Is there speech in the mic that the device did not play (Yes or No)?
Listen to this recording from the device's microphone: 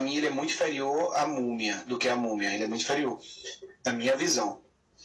No